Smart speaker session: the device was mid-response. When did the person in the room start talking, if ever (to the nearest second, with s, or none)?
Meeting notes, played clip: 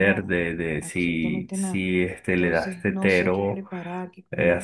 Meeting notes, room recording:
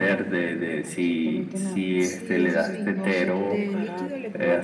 2 s